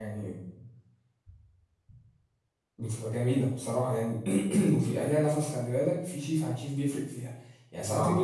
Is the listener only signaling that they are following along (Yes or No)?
Yes